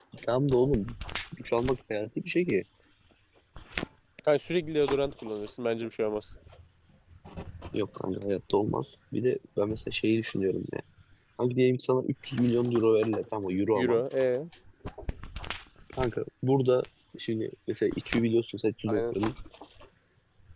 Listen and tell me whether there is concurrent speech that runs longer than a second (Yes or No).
No